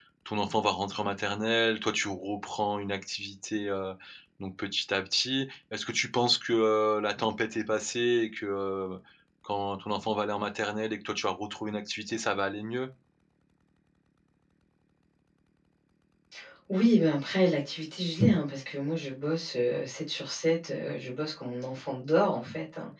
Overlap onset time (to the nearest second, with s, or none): none